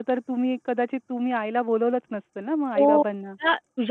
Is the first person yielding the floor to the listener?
Yes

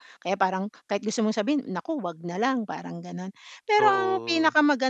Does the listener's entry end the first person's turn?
No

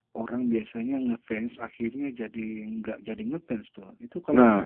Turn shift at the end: Yes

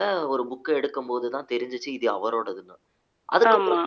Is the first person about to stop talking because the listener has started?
No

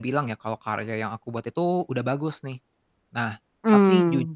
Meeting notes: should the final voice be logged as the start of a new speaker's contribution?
No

